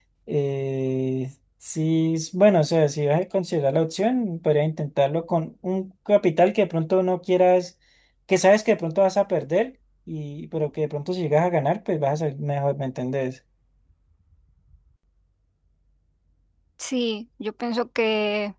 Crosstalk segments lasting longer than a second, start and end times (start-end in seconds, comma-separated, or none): none